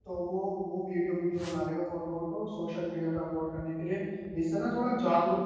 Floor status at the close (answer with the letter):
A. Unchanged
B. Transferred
A